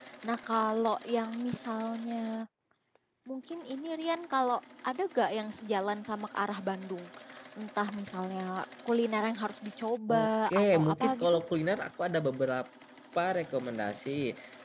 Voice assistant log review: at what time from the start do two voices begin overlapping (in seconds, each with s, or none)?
10.1 s